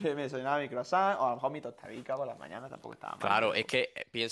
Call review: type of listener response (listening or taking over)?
taking over